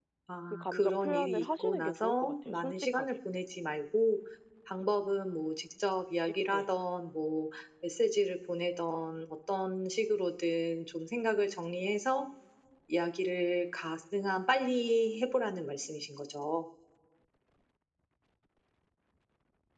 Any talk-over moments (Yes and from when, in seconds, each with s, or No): Yes, from 0.5 s